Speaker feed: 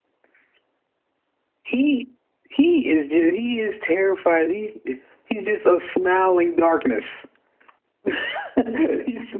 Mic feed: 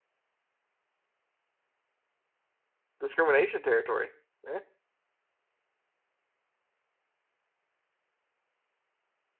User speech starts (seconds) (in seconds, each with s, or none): 3.0 s